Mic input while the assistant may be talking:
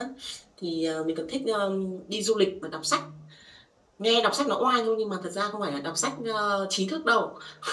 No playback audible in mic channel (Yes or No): Yes